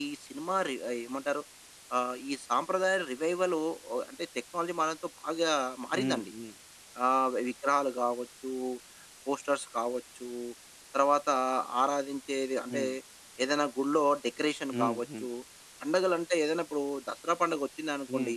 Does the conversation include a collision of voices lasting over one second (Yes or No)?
No